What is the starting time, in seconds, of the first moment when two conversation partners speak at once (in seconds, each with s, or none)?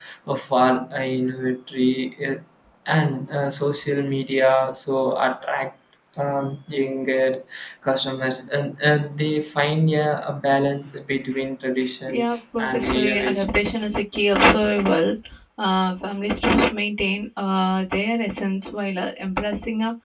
12.1 s